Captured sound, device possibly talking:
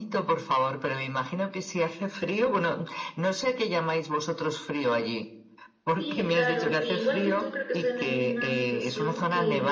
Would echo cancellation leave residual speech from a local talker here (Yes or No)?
Yes